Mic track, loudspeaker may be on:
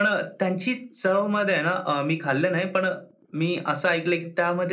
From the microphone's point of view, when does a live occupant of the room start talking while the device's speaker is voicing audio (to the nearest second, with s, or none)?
none